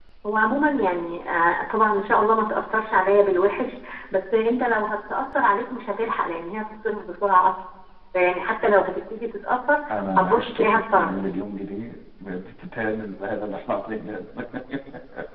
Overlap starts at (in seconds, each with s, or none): 9.9 s